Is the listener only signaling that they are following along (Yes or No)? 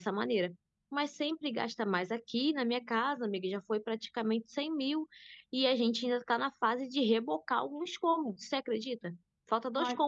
Yes